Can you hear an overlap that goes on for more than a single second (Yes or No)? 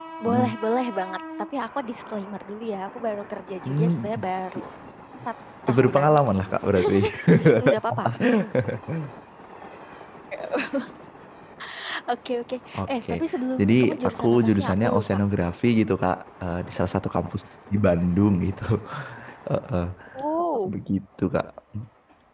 Yes